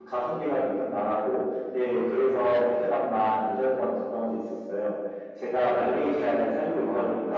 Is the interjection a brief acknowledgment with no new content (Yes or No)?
Yes